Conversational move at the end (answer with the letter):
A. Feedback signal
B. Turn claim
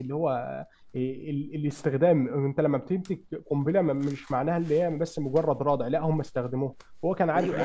B